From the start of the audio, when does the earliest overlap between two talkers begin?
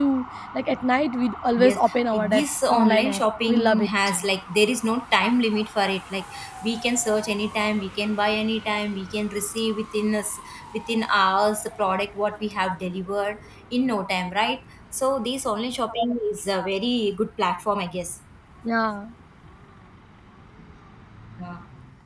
2 s

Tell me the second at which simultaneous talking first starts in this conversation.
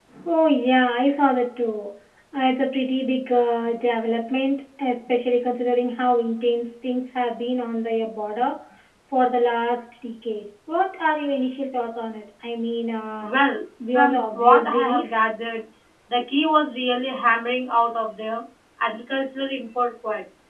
14 s

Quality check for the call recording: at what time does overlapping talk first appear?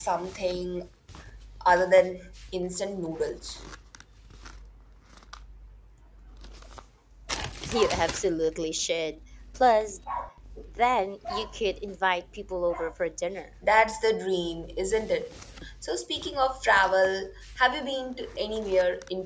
none

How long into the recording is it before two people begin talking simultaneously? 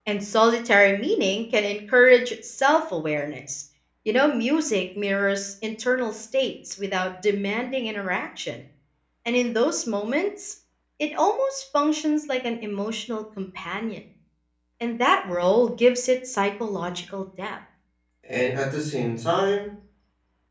none

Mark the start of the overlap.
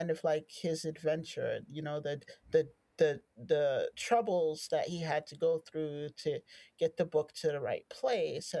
none

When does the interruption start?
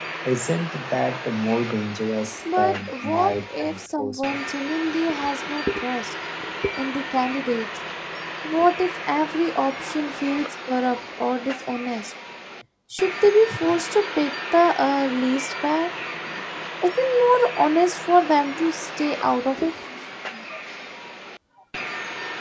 2 s

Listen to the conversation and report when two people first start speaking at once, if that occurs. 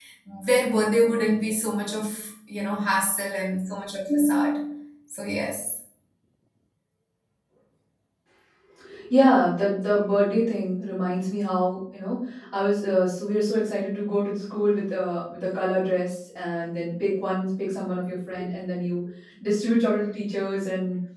none

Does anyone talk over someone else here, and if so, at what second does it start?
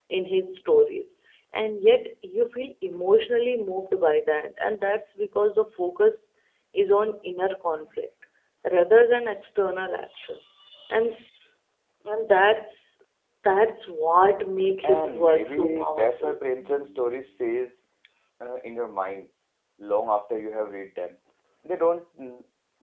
15 s

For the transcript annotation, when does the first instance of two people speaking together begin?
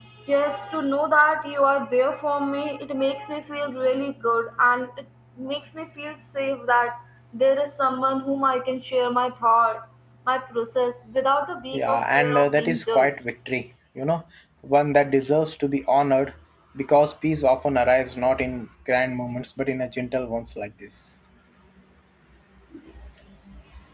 12 s

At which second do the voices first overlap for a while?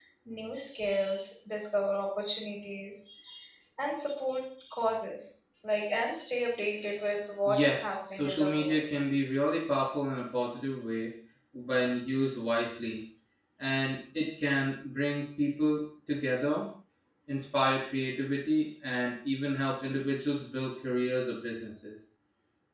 7 s

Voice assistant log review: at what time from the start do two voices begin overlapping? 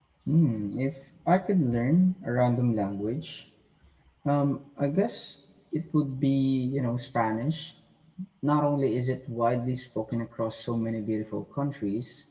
none

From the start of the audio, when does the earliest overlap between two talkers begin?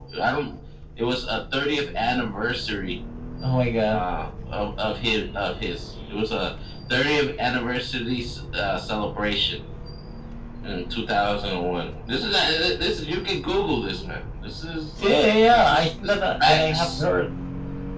15 s

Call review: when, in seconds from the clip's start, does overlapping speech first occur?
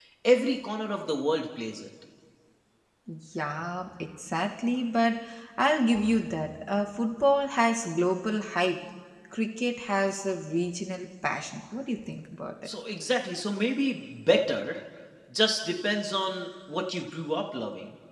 none

